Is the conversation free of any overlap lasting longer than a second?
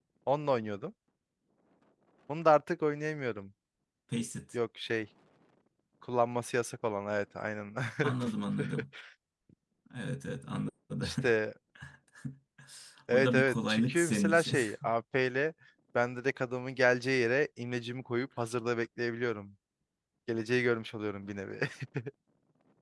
No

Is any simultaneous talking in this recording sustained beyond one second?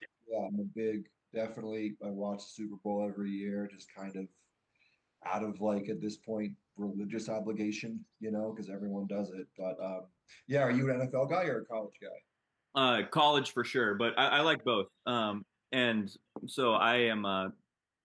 No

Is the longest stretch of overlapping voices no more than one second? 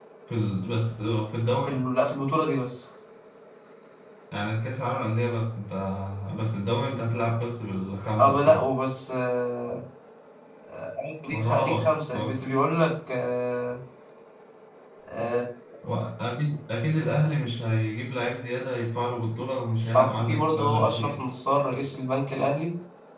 No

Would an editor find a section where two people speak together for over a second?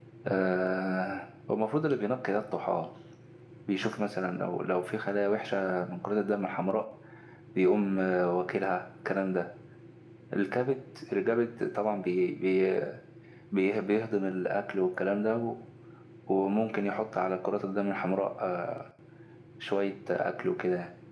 No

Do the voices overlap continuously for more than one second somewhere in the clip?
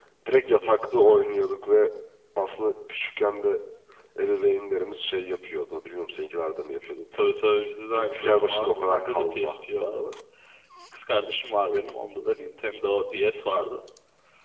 Yes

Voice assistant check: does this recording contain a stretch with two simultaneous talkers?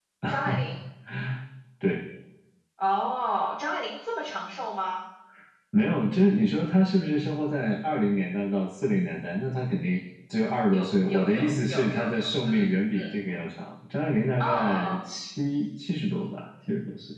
Yes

